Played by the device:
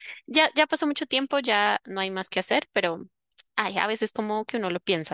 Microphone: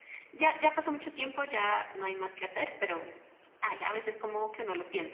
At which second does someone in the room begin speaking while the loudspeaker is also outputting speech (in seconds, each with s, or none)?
none